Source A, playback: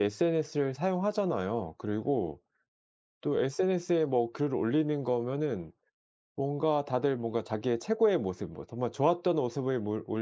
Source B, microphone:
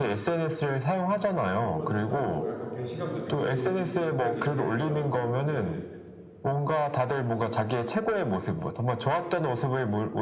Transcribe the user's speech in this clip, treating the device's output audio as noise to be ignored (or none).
어 그러면 진짜 더 약간 배신감도 느끼 느껴지시겠어요. 네.